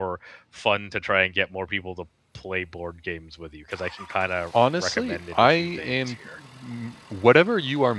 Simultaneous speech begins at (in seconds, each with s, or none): 4.5 s